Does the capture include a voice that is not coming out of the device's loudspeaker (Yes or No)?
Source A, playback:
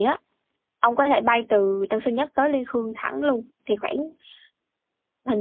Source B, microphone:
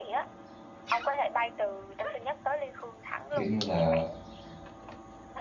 Yes